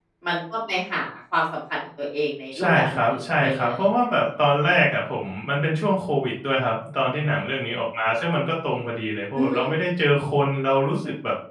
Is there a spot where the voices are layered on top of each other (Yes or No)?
Yes